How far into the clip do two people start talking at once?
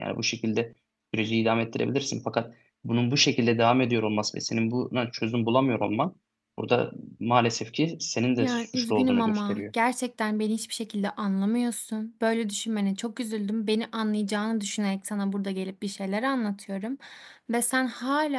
8.4 s

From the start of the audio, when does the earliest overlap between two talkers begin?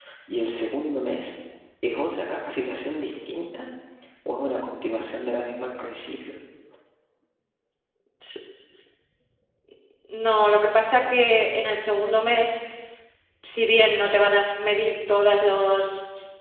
none

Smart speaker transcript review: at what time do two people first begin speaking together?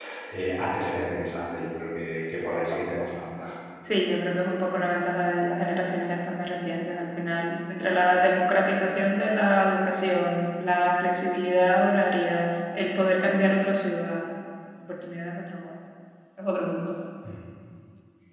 none

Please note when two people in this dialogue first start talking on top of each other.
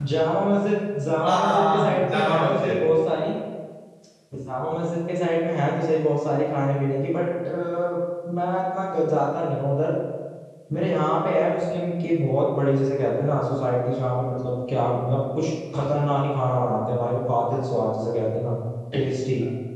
1.2 s

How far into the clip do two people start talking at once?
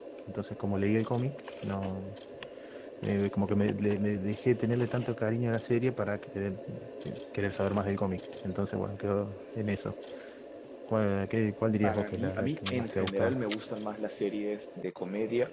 11.8 s

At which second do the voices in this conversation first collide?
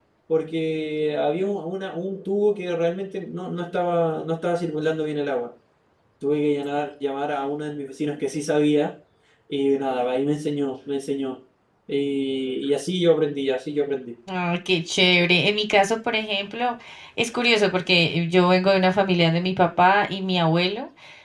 none

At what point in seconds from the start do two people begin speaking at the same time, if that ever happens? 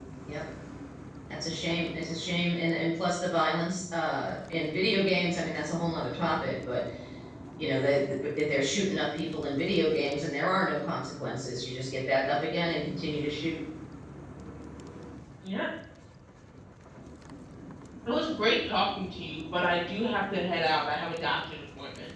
none

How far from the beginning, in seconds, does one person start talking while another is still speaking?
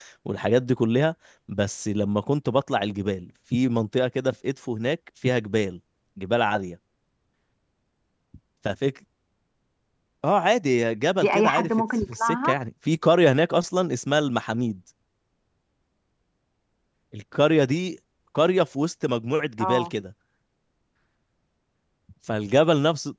11.2 s

